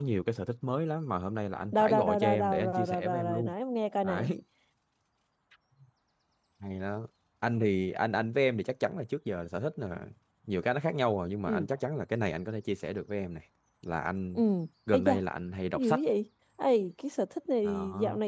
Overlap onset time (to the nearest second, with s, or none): 2 s